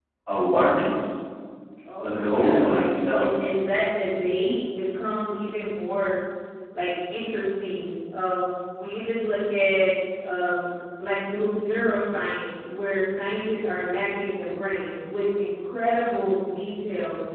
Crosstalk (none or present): present